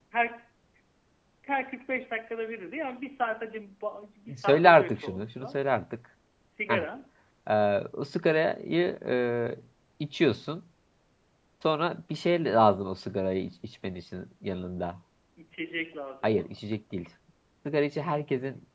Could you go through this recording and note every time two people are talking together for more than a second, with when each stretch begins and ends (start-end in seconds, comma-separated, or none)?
4.4-5.6